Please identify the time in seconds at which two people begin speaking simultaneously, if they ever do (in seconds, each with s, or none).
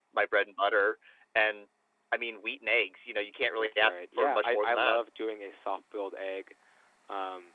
3.6 s